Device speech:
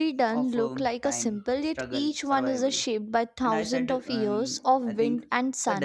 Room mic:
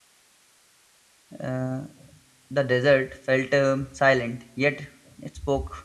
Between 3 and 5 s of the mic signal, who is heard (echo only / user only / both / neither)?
user only